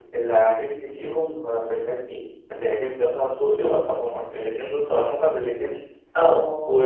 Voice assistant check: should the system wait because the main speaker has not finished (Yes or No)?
No